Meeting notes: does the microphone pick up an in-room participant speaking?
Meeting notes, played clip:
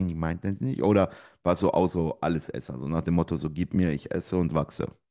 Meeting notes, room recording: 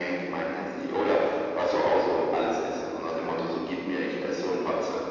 No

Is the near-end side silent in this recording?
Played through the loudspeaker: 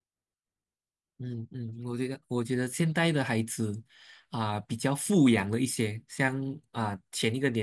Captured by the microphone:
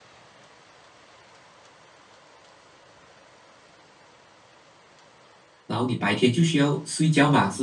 No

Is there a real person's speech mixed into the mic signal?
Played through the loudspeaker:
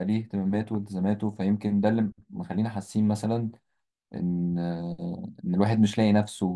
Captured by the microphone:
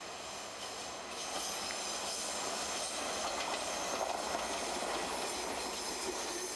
No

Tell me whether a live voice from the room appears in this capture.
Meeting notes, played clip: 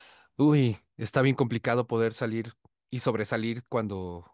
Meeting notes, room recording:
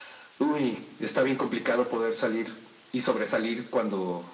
No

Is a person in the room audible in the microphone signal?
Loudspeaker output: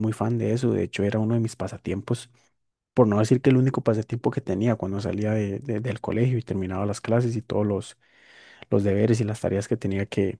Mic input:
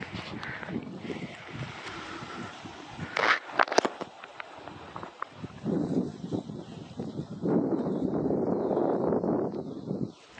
No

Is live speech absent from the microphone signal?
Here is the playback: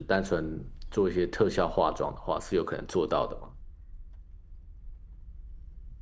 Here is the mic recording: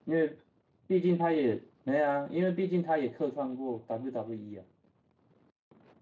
No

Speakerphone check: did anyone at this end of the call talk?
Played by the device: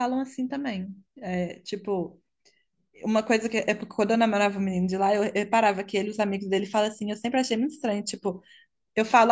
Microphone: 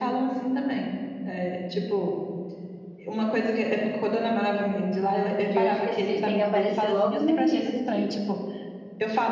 Yes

